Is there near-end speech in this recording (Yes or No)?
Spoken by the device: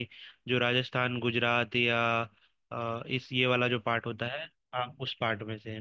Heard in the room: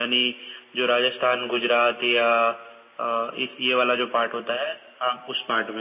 No